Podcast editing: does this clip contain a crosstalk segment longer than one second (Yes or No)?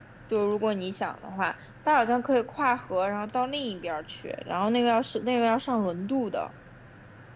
No